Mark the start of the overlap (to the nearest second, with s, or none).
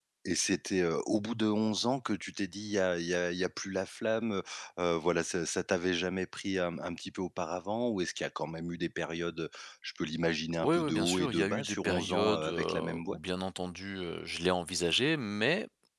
11 s